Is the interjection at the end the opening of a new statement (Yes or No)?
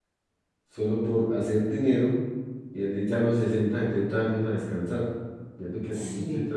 No